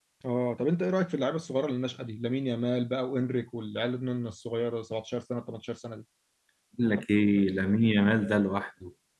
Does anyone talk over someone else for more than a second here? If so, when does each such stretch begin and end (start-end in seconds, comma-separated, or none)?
none